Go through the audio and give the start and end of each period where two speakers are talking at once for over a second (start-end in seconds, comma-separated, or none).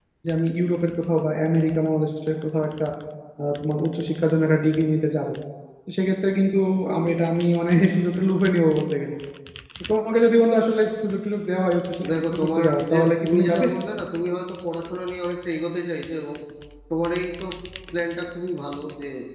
12.1-13.7